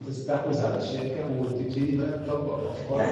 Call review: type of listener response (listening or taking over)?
taking over